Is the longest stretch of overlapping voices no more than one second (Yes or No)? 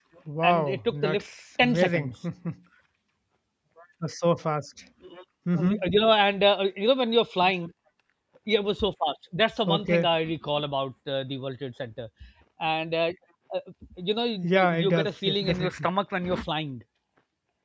No